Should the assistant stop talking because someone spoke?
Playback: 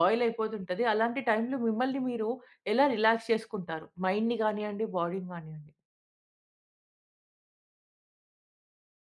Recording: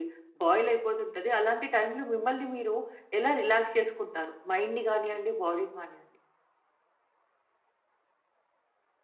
No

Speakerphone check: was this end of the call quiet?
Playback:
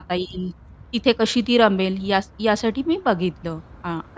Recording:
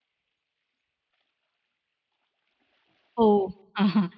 No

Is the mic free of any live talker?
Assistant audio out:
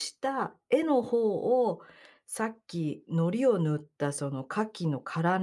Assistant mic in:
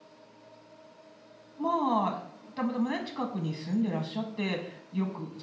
No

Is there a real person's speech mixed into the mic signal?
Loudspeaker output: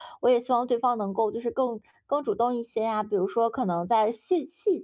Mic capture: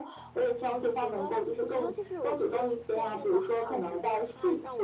Yes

